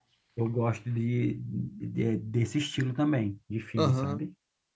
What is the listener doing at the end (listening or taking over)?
taking over